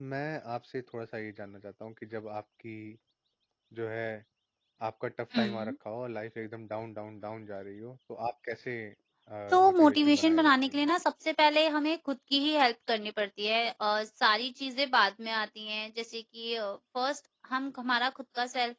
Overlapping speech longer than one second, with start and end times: 9.6-10.8

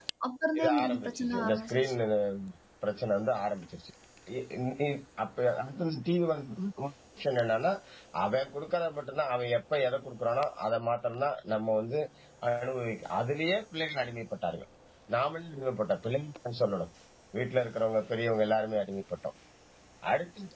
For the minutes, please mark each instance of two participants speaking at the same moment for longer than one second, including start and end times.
0.6-1.9

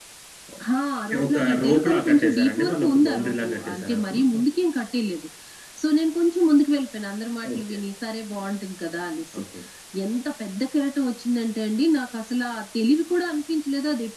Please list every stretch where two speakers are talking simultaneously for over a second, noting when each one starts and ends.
1.3-4.4

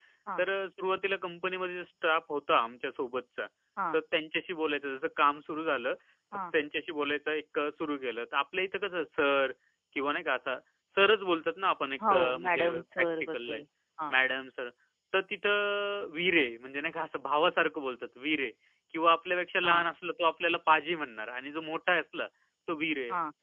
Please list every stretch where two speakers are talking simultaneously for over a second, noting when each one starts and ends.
12.1-13.6

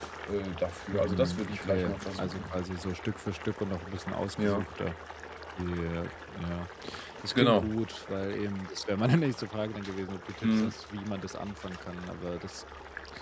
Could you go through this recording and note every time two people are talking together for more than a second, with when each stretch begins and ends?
0.9-2.6

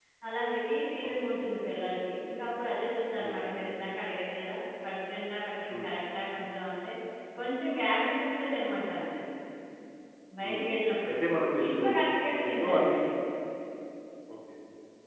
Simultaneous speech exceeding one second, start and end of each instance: none

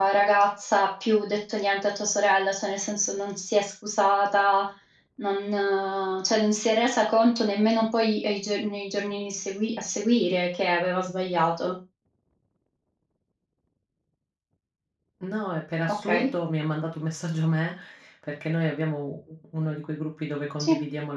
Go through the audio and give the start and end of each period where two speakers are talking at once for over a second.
none

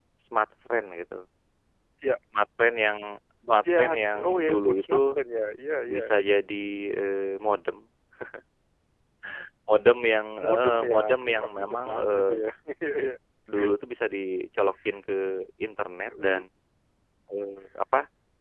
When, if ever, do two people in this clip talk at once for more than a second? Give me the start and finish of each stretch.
3.8-5.2, 10.4-12.3

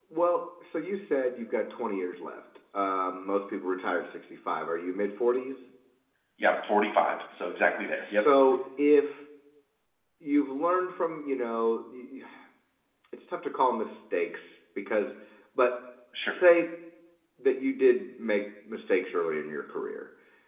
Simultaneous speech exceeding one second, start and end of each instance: none

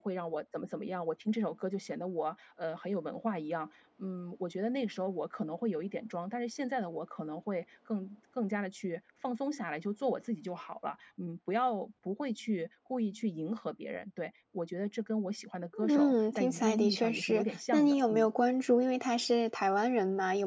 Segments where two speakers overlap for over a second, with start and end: 15.9-18.3

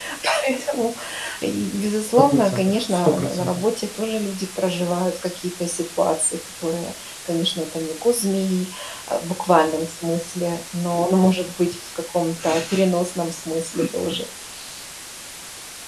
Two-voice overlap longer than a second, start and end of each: 2.3-3.6

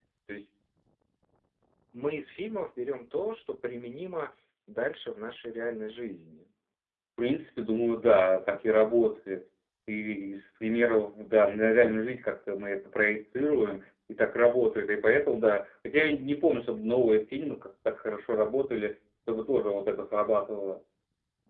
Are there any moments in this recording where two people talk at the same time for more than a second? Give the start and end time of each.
none

